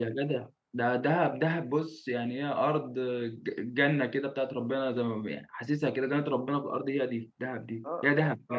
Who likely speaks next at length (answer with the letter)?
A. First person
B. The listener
B